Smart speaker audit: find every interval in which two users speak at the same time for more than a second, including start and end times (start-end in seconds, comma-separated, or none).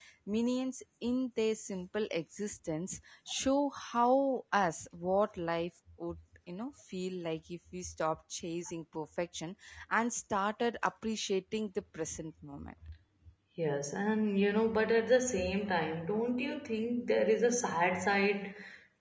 none